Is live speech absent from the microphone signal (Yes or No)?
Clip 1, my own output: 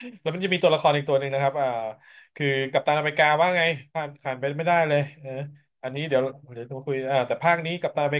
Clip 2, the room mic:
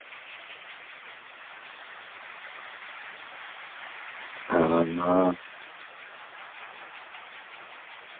No